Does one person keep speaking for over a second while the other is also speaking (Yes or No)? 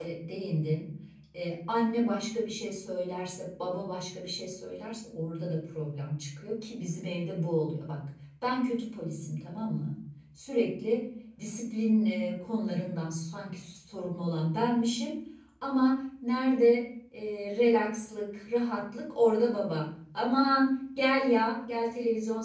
No